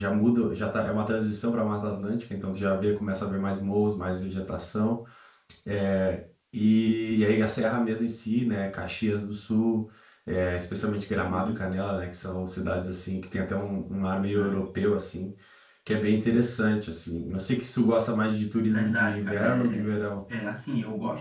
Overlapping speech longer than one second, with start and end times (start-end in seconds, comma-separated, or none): 18.6-19.9